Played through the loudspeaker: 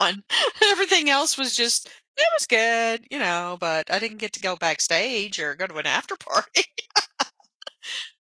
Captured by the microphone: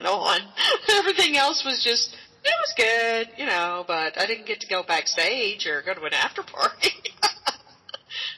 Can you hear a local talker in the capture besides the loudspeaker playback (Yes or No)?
No